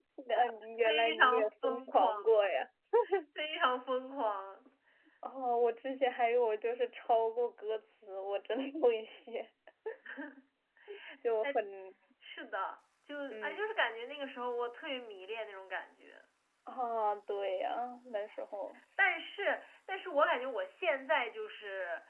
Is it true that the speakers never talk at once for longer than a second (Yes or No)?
No